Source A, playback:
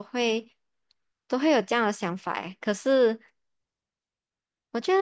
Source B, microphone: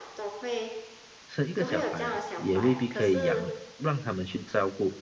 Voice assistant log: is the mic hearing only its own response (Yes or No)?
No